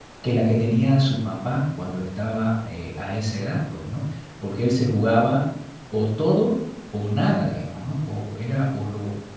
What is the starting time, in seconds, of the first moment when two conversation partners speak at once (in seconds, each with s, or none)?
none